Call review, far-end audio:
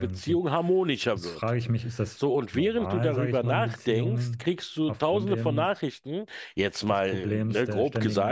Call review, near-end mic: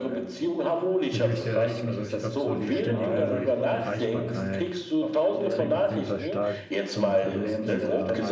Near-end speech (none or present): present